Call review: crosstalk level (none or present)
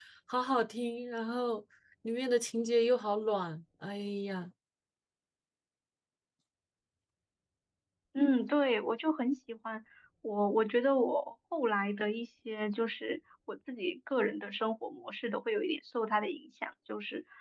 none